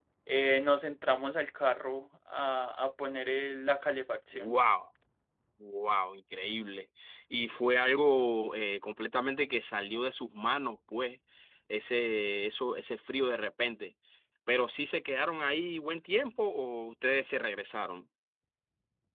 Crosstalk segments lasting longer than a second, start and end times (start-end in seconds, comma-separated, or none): none